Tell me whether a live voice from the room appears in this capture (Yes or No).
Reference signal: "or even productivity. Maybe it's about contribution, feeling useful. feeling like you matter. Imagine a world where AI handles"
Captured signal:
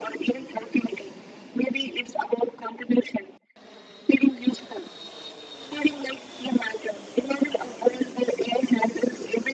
No